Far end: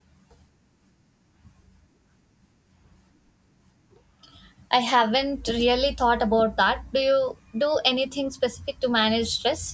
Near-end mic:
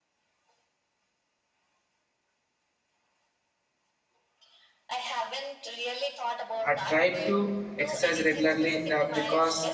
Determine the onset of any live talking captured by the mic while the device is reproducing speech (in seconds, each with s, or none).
6.7 s